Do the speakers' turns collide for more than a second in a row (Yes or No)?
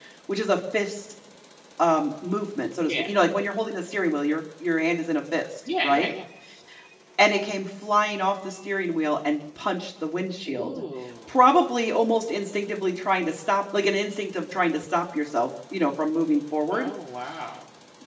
No